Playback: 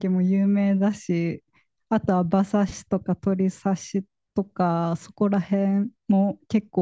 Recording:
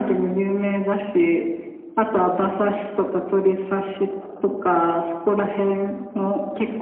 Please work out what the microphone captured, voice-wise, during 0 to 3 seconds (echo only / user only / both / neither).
echo only